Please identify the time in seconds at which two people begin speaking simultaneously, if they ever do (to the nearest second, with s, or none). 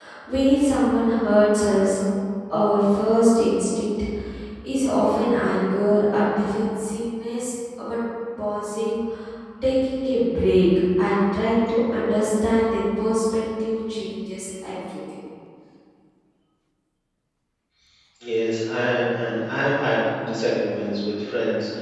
none